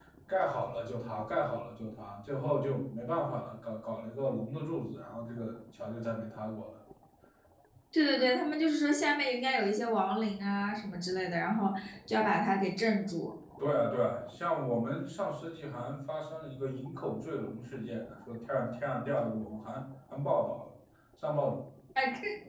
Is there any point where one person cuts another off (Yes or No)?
No